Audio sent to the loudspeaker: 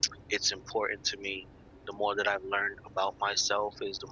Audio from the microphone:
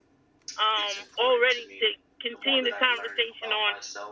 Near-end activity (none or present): present